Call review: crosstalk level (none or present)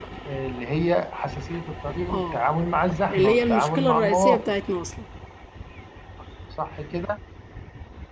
present